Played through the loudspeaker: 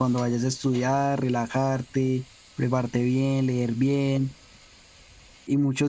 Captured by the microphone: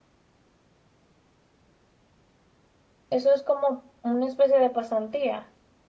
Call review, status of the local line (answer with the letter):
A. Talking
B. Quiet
A